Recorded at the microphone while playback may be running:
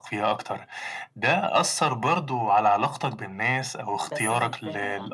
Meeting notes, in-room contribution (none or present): present